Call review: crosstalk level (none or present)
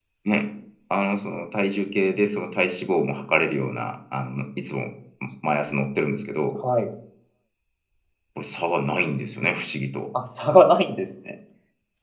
none